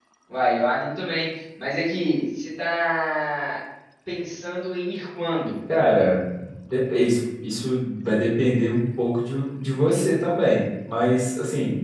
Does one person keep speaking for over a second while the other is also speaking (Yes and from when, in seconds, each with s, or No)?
No